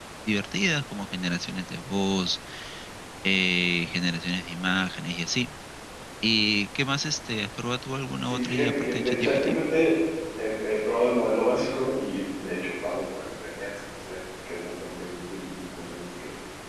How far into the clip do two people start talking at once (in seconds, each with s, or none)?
8.2 s